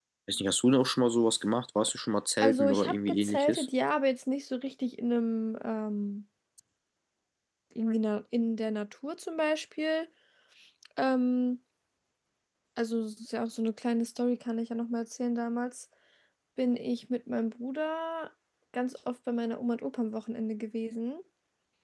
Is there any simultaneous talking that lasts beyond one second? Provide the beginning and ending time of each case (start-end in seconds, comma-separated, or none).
2.4-3.7